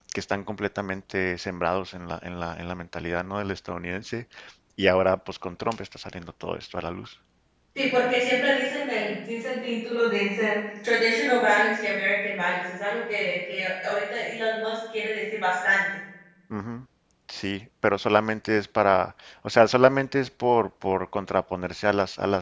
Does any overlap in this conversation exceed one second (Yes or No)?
No